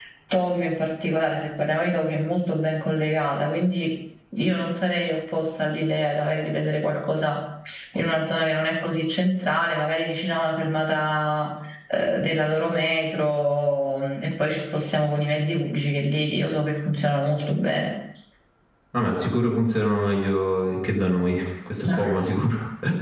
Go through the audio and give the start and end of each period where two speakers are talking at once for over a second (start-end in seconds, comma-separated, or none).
none